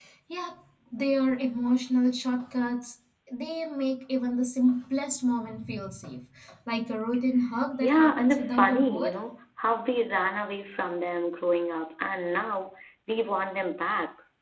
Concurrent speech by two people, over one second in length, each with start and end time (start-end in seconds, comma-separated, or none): 7.8-9.2